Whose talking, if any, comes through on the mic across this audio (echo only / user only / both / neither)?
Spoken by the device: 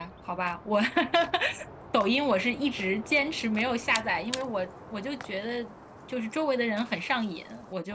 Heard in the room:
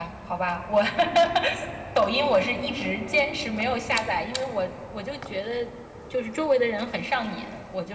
echo only